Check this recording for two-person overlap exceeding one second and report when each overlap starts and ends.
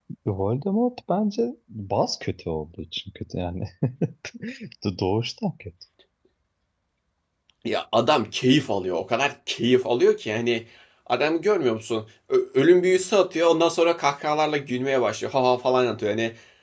none

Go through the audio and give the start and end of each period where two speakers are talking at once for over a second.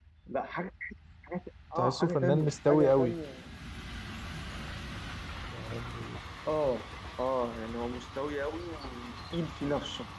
1.8-3.1

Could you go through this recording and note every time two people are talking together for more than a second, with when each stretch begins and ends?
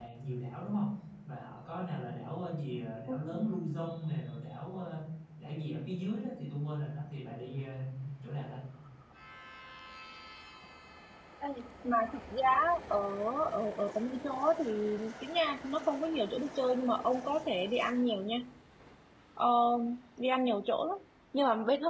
none

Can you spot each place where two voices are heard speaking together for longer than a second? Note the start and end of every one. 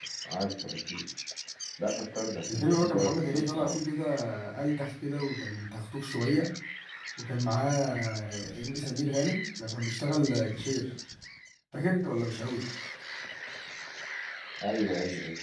2.5-3.8

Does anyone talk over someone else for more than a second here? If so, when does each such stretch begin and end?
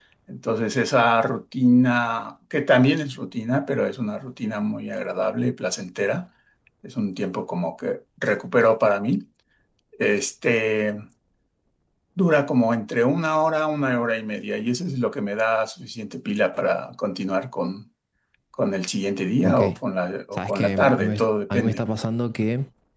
20.4-21.8

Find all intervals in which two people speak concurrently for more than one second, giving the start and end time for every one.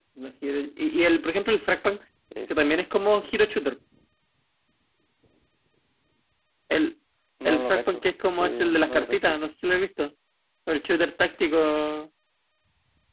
7.5-9.5

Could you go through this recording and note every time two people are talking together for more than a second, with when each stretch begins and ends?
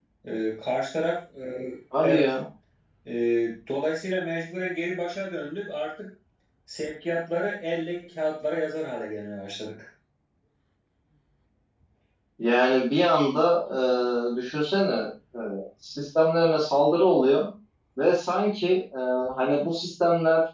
none

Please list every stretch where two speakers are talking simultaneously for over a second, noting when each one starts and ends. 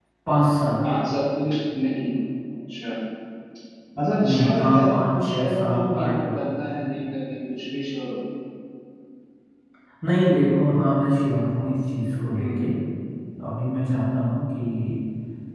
4.2-6.2

